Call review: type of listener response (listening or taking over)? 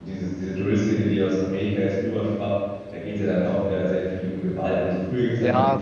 taking over